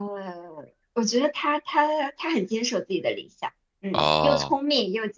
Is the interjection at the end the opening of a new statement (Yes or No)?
No